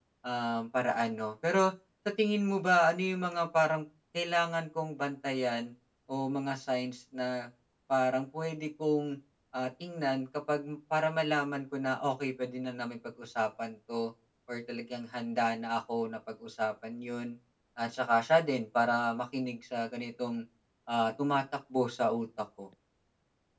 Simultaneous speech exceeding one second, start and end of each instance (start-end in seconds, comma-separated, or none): none